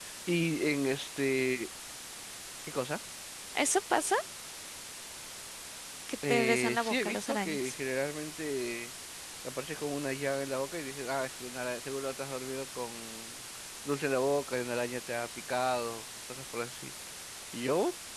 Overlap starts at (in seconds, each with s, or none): 6.3 s